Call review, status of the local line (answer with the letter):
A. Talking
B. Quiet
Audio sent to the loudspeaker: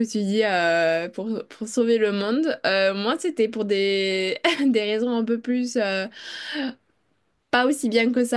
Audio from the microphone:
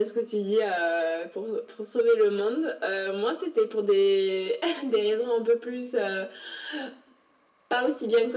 B